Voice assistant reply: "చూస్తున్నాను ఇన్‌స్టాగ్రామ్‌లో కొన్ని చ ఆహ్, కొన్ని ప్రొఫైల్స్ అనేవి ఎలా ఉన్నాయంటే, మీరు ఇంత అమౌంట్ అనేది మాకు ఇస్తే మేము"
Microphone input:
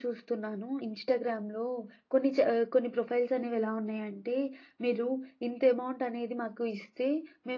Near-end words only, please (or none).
none